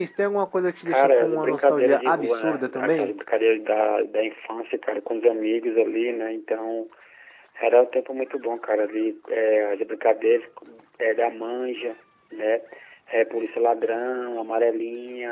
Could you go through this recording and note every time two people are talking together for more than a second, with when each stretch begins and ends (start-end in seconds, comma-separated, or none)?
0.9-3.1